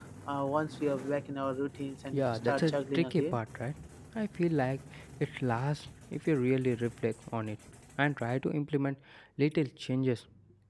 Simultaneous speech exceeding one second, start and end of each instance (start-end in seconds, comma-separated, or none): 2.1-3.4